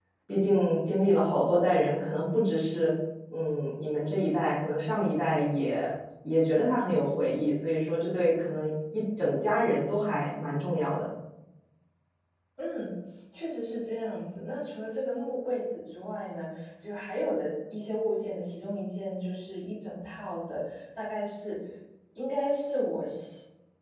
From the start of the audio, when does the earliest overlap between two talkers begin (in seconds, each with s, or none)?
none